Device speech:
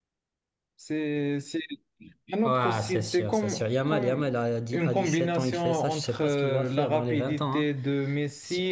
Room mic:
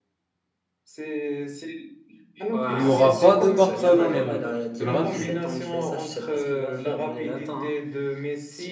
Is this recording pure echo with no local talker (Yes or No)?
No